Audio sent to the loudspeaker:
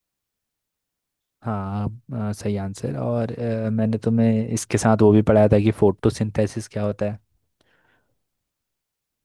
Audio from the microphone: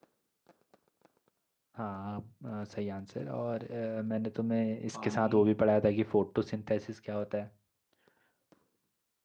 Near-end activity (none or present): present